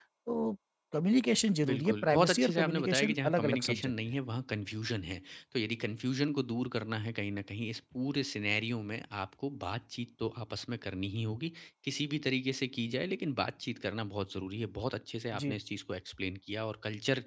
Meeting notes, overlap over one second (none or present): present